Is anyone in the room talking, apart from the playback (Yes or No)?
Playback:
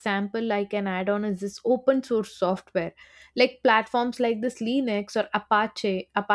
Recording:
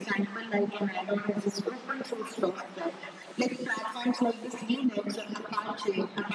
No